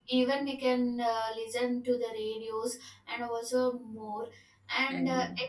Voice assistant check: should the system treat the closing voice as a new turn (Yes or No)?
No